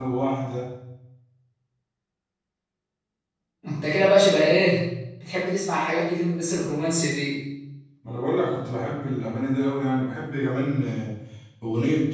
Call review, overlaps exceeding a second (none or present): none